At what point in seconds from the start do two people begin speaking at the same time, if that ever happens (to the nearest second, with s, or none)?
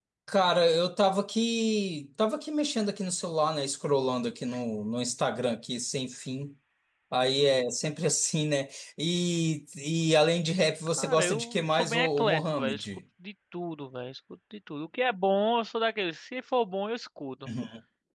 11 s